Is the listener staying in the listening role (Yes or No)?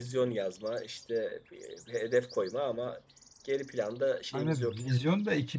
No